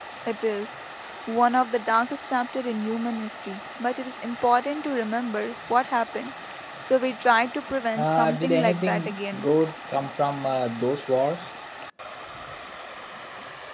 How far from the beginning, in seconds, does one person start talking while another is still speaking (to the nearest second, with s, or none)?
8 s